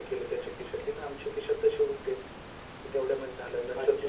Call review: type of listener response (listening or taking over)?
listening